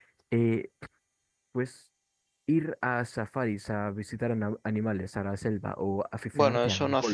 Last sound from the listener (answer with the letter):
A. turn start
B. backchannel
A